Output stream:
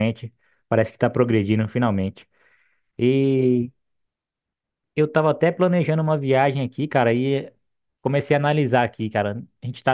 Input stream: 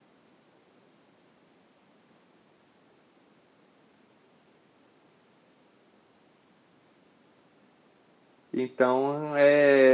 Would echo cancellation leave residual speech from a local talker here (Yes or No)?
Yes